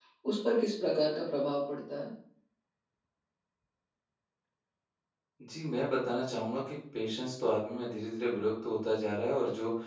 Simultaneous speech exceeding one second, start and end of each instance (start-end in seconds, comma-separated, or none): none